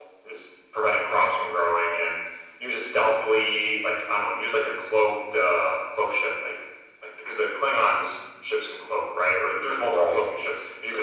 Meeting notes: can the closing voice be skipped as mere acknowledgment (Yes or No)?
Yes